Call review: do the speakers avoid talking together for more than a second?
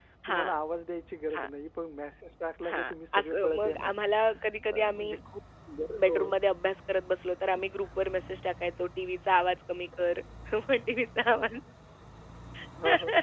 No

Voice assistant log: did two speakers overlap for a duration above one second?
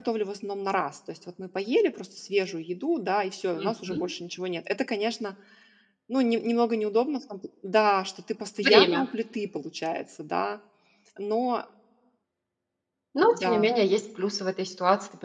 No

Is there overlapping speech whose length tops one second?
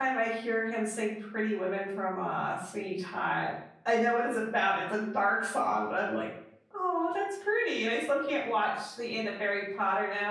No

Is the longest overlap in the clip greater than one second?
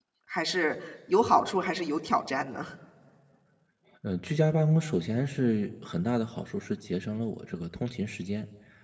No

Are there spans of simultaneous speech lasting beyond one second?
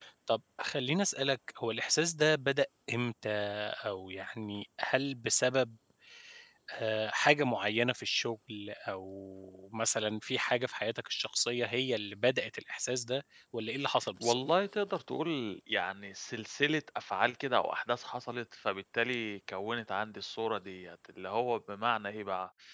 No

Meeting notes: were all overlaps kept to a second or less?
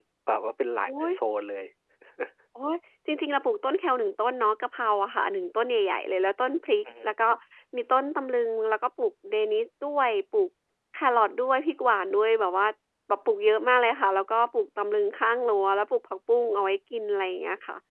Yes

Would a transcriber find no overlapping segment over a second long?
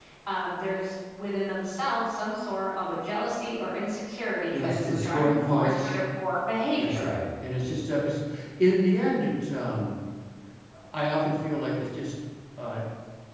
No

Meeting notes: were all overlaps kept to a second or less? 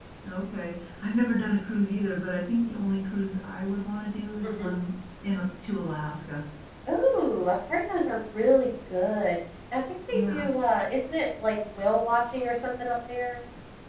Yes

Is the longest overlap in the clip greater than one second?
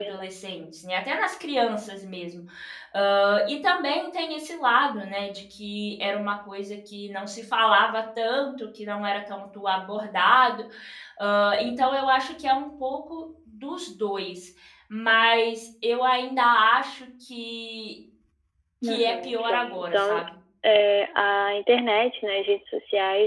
Yes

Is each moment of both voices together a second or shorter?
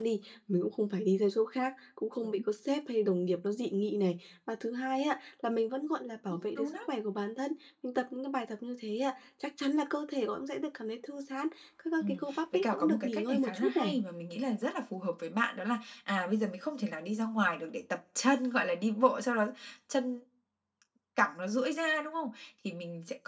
No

